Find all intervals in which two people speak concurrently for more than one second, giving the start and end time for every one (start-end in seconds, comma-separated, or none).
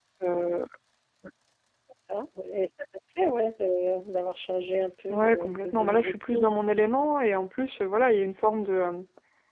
5.1-6.5